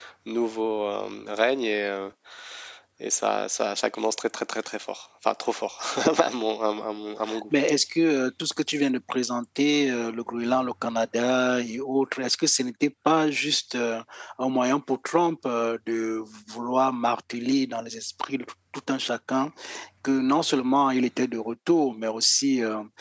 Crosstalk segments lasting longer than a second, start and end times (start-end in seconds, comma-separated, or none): none